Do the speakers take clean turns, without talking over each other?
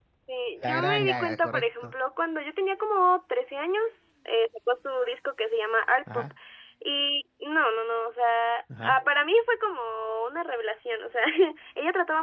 No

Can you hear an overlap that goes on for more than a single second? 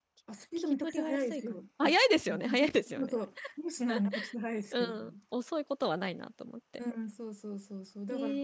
Yes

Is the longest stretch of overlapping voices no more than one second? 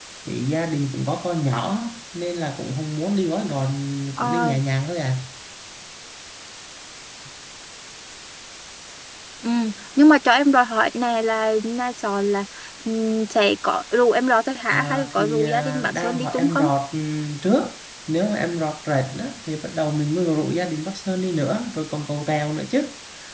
No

